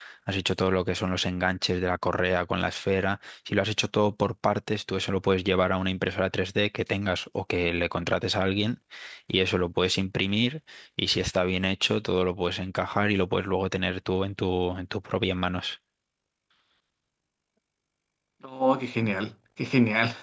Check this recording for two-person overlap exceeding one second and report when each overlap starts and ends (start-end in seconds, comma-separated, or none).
none